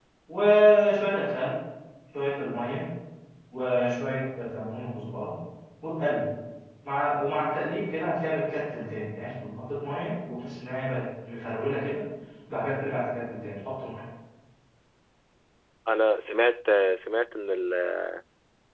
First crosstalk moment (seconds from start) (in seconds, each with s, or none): none